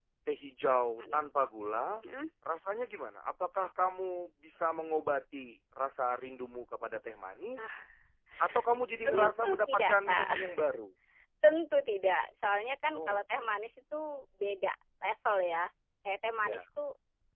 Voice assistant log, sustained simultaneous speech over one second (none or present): present